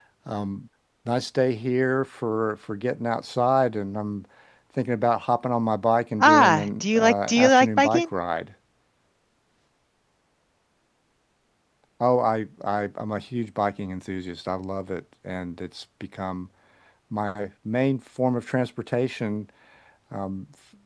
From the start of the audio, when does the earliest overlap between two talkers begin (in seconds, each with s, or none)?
6.2 s